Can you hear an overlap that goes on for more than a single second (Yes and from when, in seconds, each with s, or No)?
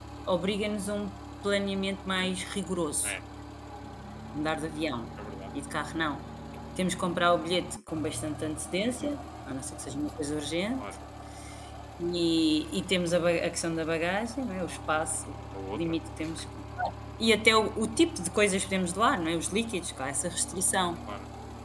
No